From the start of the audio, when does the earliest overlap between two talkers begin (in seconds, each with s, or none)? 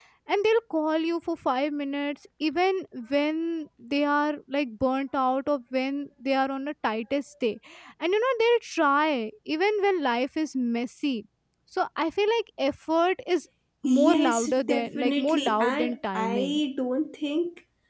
13.8 s